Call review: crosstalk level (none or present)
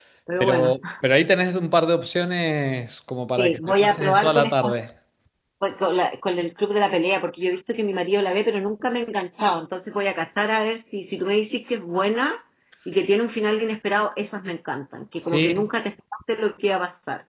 present